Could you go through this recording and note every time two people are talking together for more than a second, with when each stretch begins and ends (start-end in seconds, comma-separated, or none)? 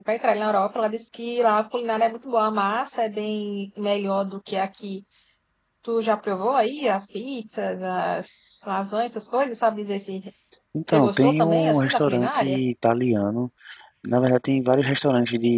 10.9-12.6